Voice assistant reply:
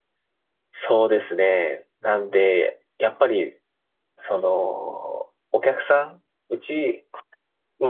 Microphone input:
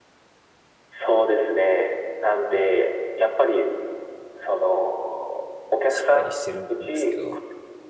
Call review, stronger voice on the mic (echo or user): echo